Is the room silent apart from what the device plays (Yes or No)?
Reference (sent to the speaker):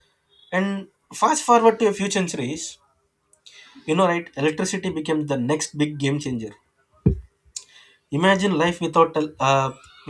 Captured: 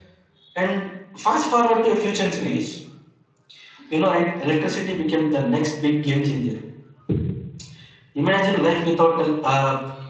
Yes